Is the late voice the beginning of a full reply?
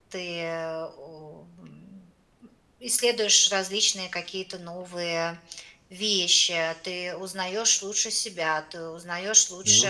No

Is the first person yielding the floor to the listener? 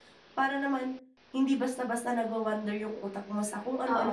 Yes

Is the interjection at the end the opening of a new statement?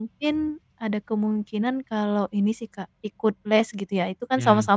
No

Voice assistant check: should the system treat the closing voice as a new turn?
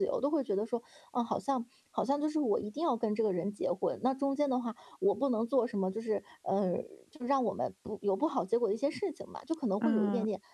No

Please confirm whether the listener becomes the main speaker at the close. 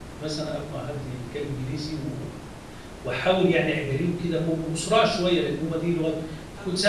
No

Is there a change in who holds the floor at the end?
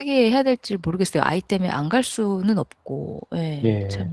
Yes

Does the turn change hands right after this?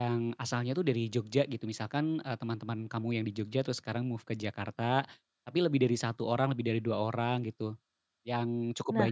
No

